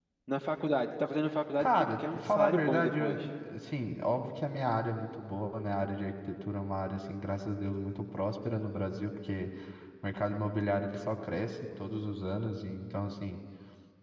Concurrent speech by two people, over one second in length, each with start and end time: 1.6-3.2

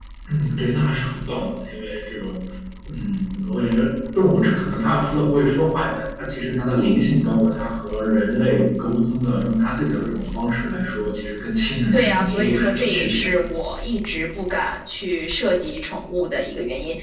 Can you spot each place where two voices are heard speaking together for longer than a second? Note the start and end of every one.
11.9-13.4

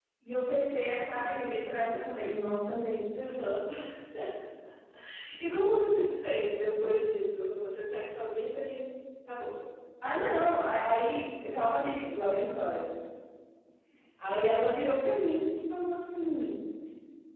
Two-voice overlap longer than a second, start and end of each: none

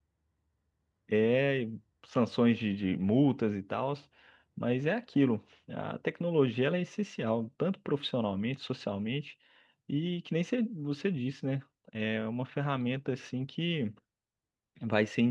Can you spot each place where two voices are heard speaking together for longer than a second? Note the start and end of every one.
none

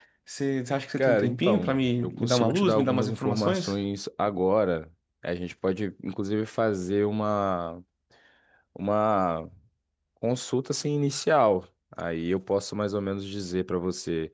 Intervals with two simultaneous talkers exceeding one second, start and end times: 1.0-3.7

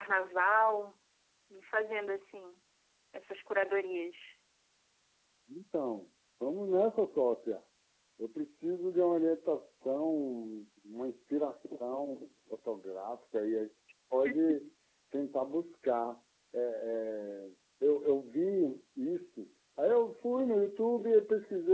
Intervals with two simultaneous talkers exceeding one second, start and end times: none

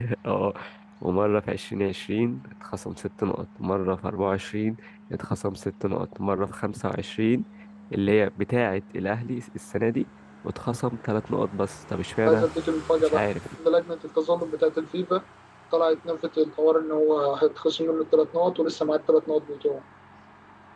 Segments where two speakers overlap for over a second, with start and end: none

